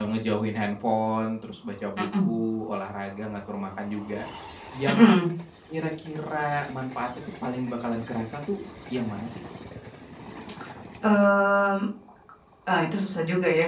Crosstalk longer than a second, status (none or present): none